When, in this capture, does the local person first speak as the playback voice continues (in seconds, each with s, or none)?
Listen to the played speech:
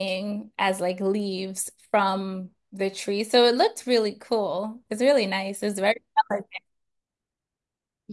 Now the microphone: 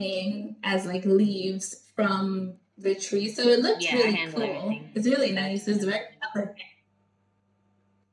3.7 s